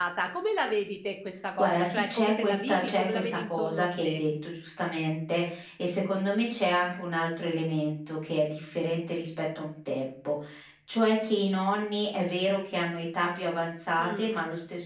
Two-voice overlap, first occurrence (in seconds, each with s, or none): 1.6 s